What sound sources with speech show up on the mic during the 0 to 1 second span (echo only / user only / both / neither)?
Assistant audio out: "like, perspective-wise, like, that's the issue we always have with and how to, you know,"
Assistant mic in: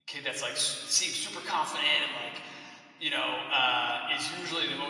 user only